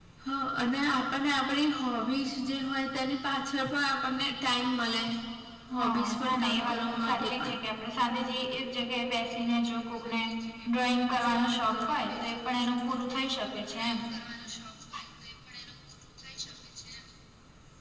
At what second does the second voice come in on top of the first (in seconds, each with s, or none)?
5.8 s